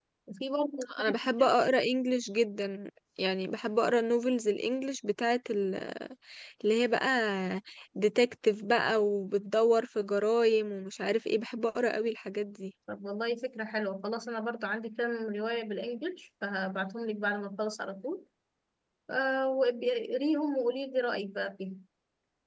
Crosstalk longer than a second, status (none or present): none